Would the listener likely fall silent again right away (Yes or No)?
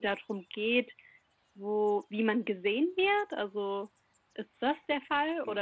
No